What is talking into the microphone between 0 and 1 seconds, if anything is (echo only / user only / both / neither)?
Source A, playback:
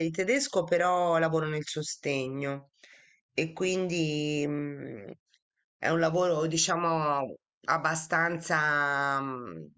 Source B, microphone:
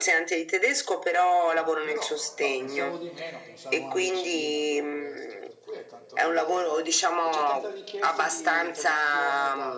echo only